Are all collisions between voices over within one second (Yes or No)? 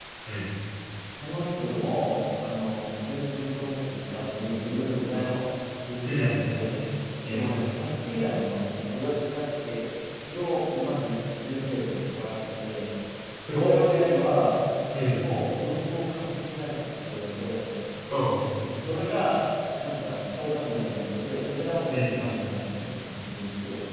Yes